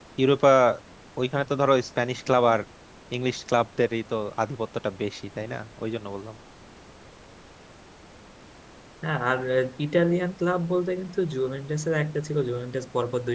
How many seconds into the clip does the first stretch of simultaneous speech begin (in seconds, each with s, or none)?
none